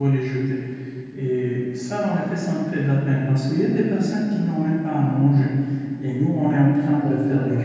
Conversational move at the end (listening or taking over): listening